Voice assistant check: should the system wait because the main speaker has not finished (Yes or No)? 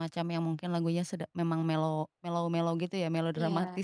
No